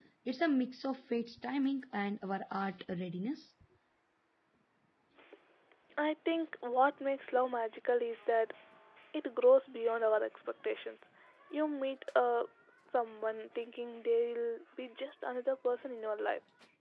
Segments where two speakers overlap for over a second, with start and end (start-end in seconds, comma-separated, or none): none